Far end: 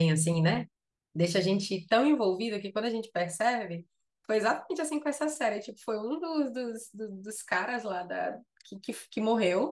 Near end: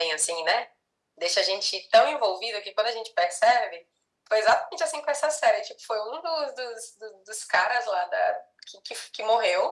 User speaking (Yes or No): No